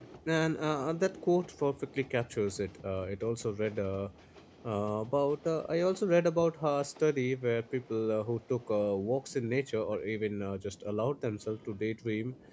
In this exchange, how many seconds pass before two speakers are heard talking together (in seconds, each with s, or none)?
none